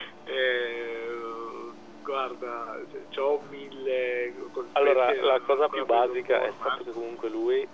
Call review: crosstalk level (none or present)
present